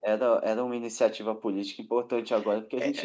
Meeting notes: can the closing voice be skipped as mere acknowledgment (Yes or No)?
No